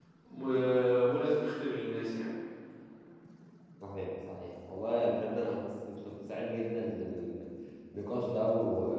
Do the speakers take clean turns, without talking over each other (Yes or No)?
Yes